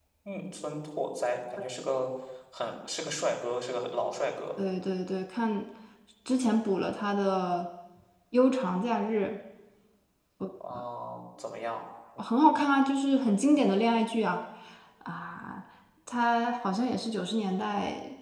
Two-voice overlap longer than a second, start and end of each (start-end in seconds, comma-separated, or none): none